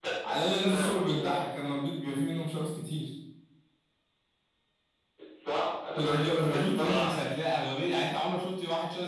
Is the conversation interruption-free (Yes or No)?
No